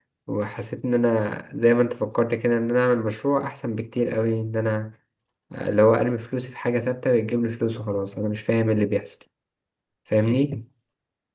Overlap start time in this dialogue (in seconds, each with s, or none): none